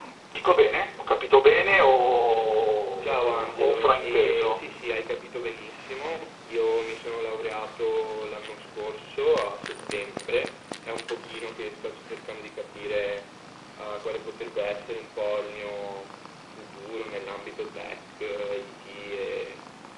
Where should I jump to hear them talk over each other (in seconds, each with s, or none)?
3.0 s